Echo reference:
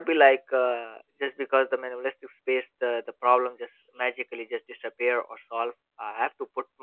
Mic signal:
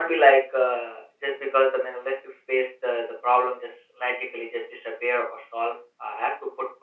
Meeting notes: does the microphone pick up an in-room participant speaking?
No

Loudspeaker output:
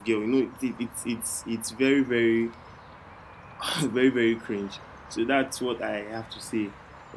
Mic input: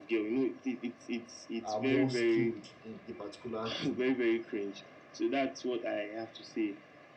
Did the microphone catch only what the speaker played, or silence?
No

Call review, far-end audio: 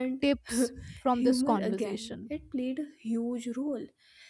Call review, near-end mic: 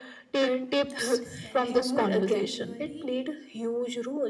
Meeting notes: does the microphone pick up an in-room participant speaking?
Yes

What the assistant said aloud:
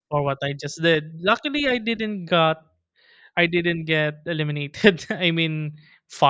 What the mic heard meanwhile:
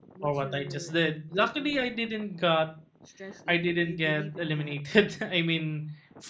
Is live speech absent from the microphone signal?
No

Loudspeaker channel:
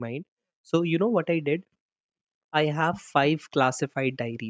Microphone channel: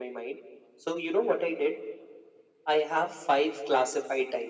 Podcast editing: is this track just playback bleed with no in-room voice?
Yes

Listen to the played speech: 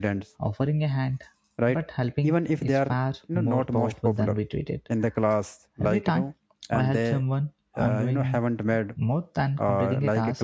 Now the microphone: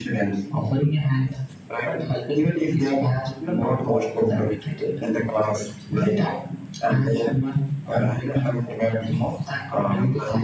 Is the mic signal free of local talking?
Yes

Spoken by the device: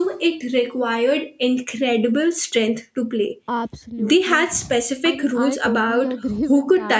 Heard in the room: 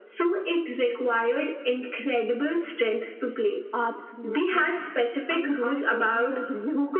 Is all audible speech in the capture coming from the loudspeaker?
Yes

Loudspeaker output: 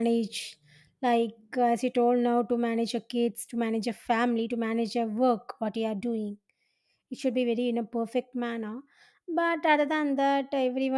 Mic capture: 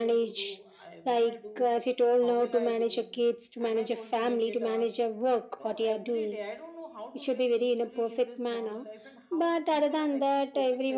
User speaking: Yes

